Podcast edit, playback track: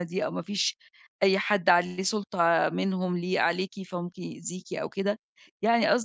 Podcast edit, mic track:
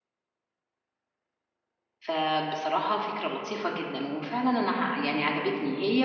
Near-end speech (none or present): present